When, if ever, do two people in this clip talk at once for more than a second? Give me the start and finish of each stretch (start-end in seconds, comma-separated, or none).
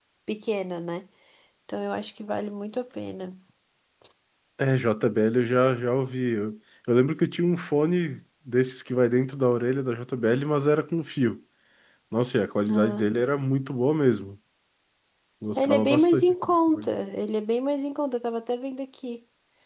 15.6-16.9